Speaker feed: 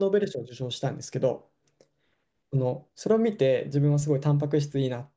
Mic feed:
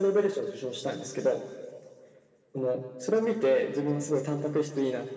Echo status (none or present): present